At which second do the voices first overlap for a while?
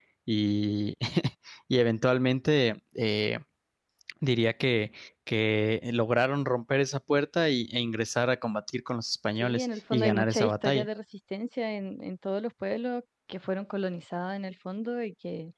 9.4 s

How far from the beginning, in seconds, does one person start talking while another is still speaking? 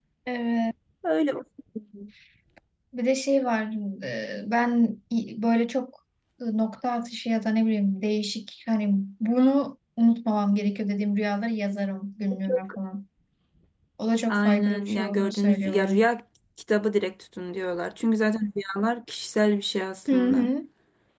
14.3 s

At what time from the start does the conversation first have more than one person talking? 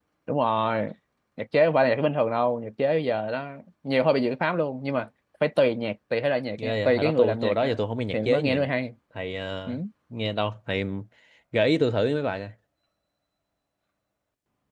6.6 s

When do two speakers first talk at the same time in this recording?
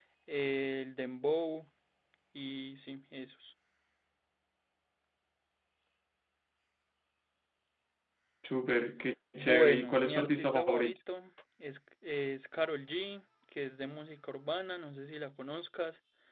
9.3 s

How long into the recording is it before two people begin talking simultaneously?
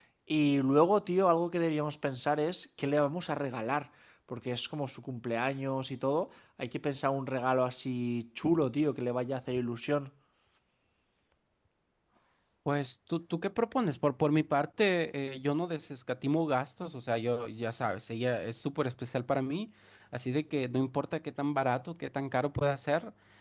none

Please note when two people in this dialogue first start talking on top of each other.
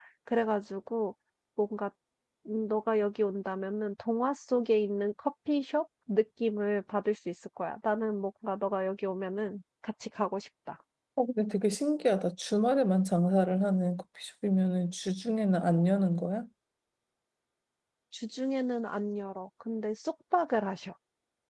none

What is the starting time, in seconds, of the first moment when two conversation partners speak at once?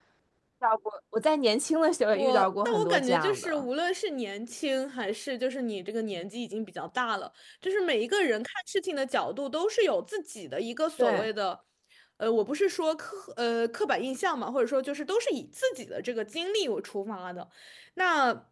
2.1 s

